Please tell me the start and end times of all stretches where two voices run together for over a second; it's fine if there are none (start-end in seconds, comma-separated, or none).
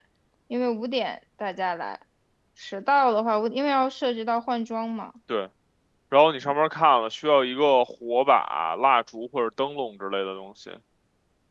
none